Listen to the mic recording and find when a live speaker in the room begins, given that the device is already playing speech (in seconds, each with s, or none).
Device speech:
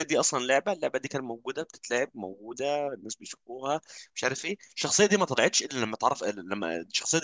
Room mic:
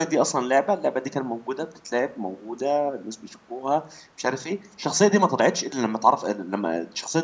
none